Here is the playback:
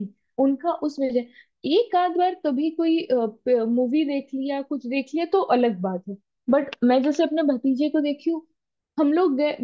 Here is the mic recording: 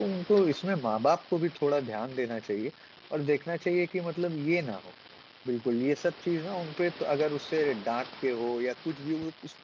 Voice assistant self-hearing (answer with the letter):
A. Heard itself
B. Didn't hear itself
B